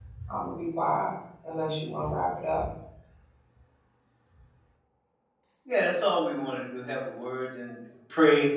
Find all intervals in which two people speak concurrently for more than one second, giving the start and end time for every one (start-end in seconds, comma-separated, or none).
none